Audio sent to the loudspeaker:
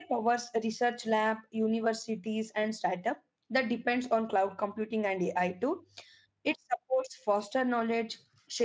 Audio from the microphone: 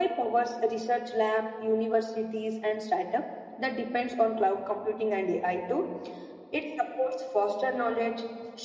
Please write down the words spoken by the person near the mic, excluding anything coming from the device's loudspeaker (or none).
none